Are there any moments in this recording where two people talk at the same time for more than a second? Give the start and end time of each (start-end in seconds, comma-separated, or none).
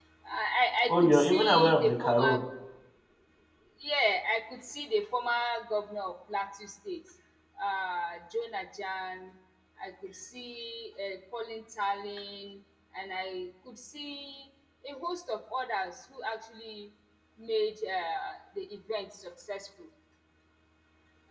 0.9-2.4